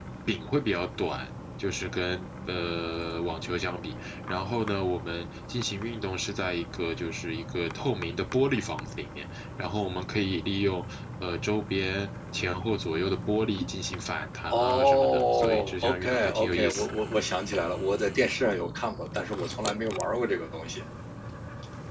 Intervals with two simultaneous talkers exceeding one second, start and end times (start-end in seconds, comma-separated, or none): 14.5-16.9